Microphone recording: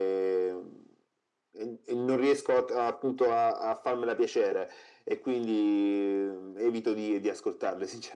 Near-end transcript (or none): none